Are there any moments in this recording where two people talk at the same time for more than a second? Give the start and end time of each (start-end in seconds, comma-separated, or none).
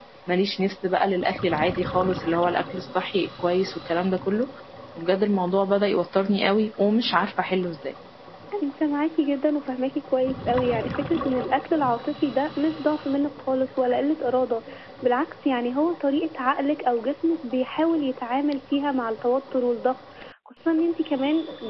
none